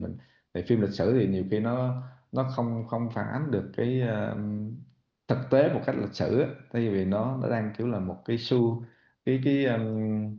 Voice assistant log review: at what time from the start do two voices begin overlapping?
none

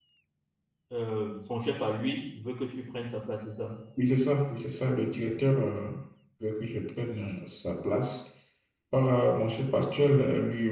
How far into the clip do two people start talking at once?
none

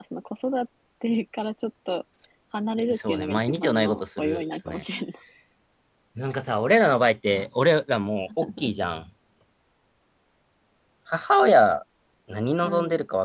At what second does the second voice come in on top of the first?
2.9 s

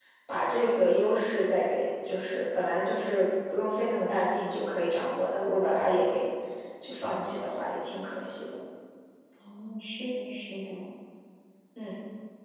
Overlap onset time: none

